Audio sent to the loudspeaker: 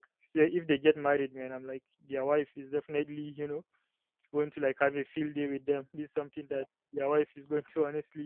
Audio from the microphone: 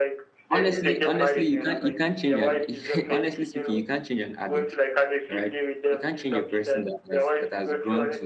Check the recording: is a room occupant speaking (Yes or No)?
Yes